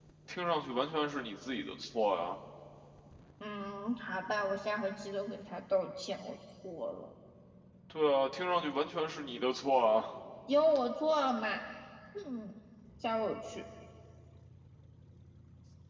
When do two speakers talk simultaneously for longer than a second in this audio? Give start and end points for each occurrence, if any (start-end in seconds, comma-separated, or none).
none